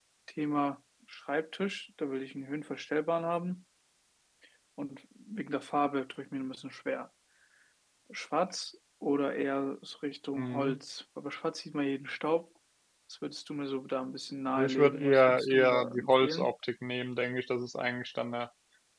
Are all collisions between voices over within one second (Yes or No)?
No